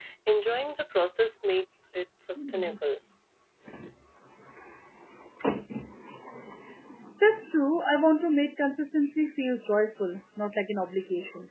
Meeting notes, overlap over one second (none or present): none